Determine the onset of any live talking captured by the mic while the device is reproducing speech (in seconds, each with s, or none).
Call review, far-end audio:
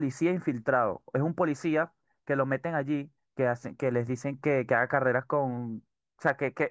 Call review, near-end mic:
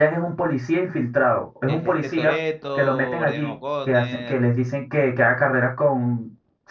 1.6 s